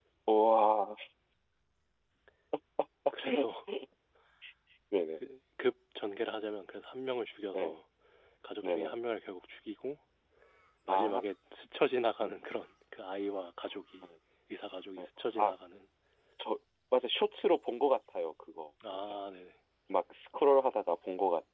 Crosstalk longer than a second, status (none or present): none